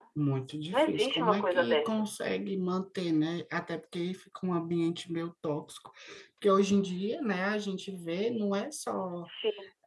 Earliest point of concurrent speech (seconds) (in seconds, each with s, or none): 0.7 s